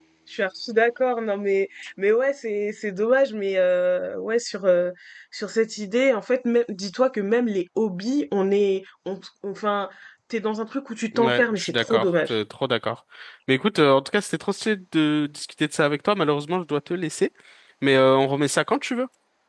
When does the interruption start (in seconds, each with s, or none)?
11.1 s